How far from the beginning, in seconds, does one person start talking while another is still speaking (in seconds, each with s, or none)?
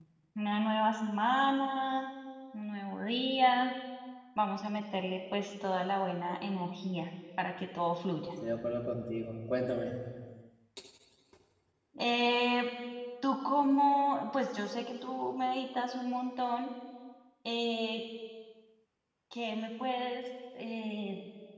none